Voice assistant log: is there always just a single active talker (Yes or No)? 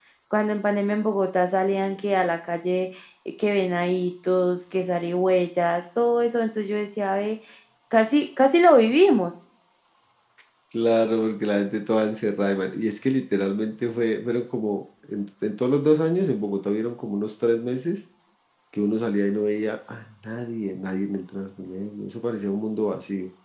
Yes